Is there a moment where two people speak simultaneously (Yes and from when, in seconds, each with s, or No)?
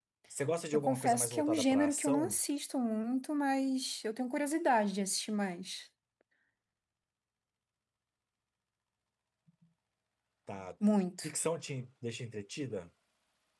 Yes, from 0.7 s